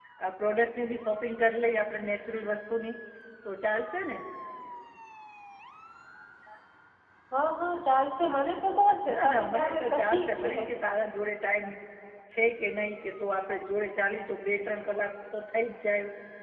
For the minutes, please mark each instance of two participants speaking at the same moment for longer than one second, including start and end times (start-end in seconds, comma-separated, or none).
9.1-10.5